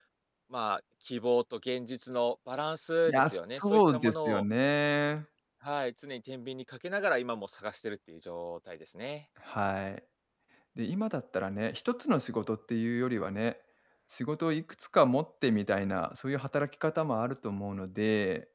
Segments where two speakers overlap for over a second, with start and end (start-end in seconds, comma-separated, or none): 3.1-4.4